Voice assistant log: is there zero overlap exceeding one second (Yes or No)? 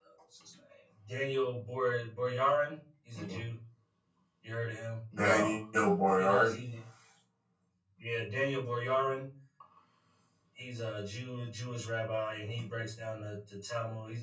Yes